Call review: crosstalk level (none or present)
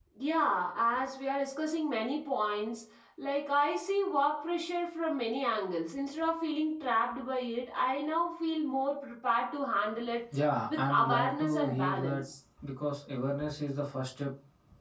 present